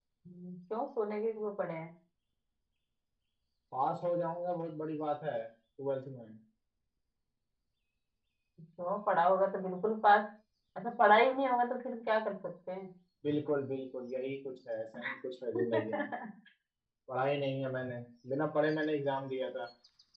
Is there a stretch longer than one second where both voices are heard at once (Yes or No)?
No